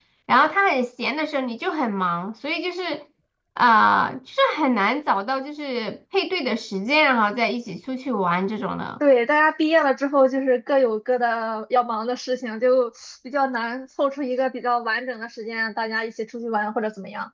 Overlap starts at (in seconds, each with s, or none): none